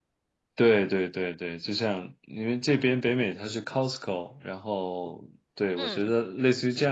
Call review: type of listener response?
listening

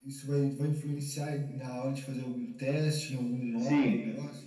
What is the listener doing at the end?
taking over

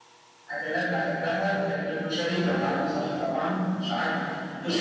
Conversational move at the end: taking over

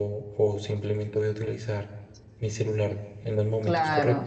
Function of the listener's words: taking over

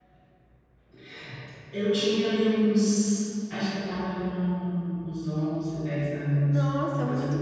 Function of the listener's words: taking over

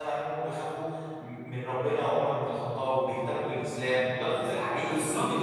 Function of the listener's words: taking over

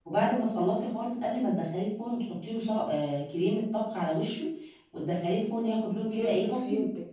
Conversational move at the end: taking over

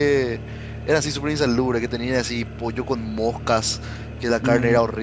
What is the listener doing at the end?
listening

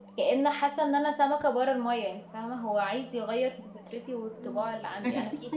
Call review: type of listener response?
taking over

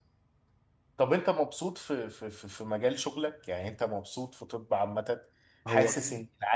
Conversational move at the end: listening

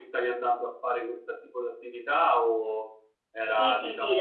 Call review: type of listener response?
taking over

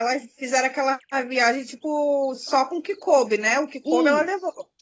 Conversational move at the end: taking over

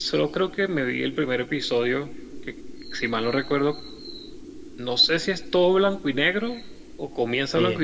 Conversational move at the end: taking over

